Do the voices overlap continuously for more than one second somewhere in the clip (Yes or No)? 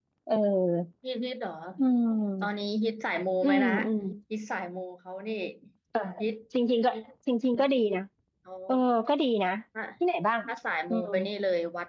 No